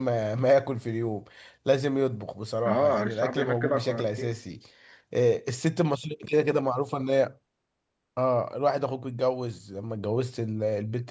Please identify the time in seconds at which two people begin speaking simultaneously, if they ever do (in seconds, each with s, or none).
2.6 s